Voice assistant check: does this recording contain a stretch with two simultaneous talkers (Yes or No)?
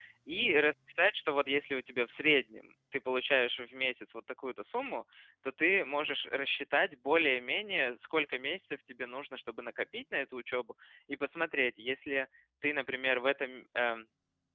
No